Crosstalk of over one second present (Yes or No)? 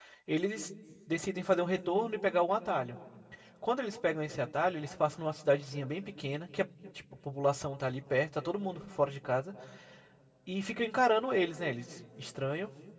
No